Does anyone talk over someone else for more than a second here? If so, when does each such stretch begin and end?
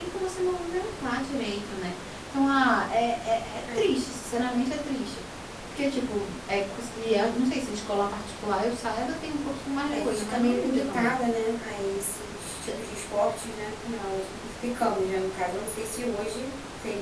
9.9-11.1

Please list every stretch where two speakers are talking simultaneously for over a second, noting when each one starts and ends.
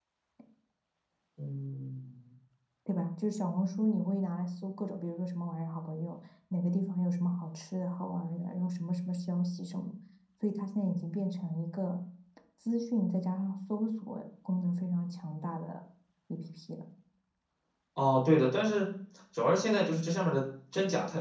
none

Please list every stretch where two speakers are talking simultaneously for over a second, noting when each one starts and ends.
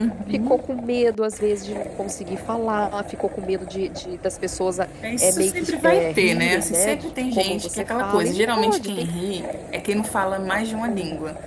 5.2-9.1

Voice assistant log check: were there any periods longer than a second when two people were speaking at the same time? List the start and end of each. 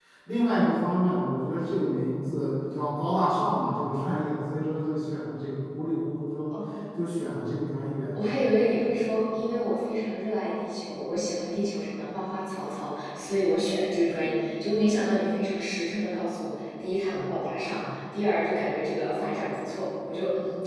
none

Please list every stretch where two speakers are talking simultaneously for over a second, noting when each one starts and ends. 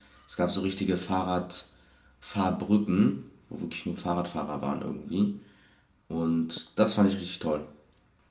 none

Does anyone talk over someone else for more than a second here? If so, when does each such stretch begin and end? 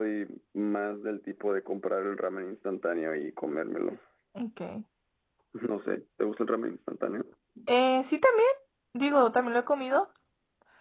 none

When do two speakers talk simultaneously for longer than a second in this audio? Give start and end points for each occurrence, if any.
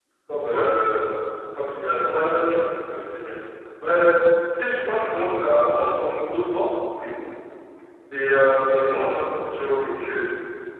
none

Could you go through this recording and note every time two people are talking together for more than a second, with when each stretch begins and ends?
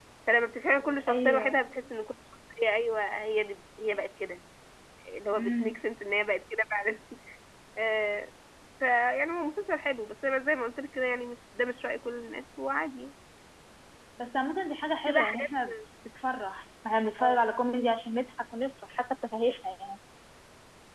none

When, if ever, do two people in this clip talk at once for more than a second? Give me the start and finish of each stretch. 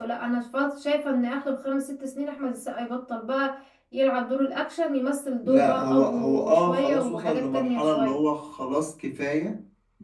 5.4-8.2

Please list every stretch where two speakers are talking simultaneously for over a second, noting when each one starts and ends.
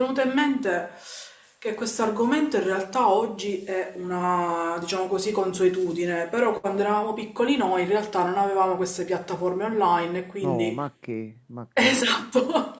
none

